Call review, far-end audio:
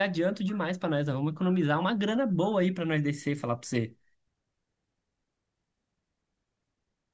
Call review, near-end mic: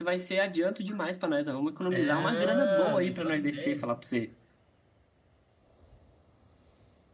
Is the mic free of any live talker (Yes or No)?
No